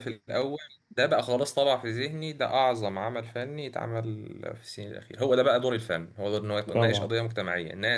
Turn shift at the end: No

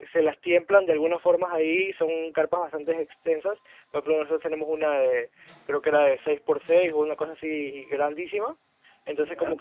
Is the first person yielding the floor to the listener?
No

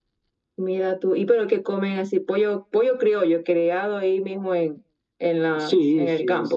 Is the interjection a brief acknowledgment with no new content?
No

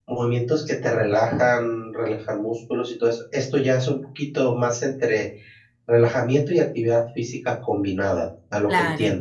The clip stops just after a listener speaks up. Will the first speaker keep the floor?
No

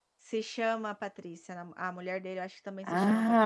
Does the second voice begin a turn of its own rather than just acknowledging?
Yes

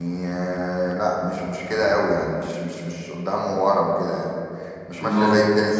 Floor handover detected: No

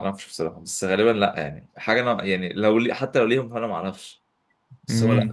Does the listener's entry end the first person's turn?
Yes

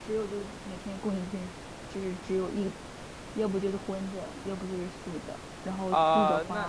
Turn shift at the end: Yes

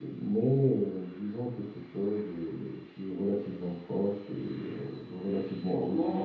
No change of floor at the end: Yes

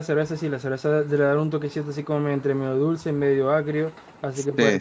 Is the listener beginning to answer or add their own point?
No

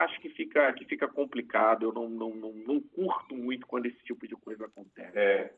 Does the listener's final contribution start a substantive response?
Yes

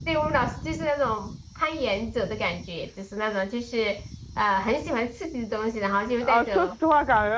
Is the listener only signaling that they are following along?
No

